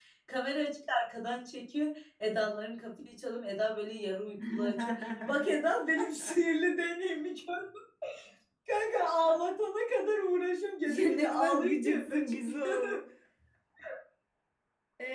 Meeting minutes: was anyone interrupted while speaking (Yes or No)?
Yes